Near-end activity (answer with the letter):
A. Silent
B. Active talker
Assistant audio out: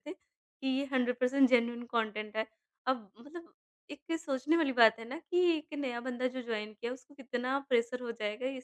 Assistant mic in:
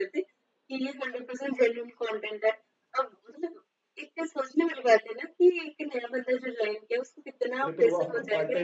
B